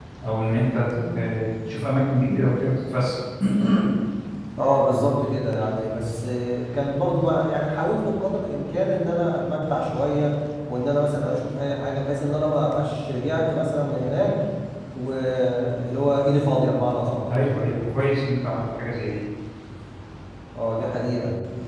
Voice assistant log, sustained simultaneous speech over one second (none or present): none